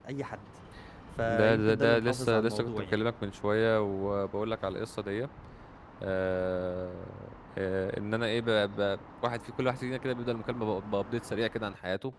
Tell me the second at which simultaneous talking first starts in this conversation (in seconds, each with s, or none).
1.2 s